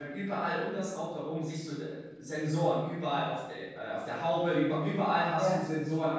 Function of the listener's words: listening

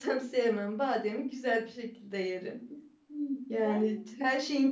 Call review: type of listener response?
listening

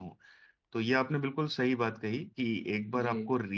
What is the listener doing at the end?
listening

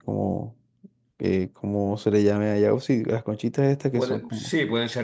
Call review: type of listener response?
taking over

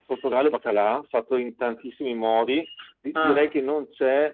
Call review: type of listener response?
listening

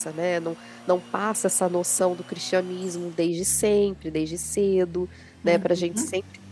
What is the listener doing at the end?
listening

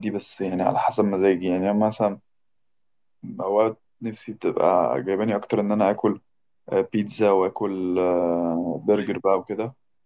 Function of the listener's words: listening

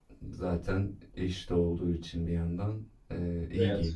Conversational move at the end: taking over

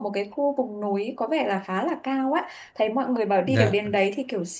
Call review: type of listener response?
listening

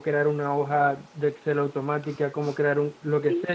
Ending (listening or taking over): listening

